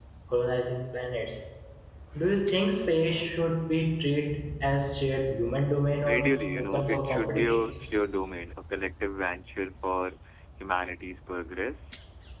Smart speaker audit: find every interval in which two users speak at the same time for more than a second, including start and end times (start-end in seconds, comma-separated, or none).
6.1-7.6